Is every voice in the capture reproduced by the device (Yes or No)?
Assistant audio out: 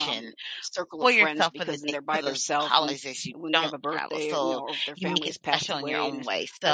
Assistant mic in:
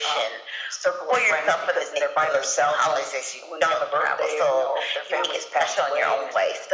Yes